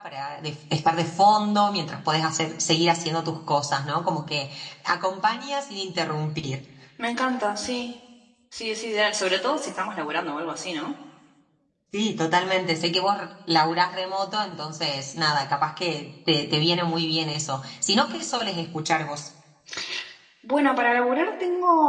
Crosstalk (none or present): none